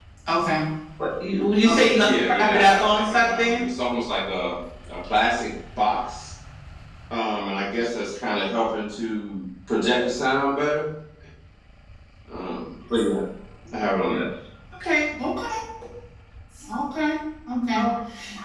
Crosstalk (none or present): present